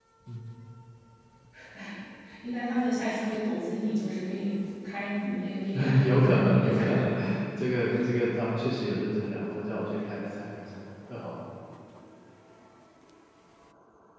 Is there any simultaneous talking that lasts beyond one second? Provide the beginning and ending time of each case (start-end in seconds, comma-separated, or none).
5.7-7.1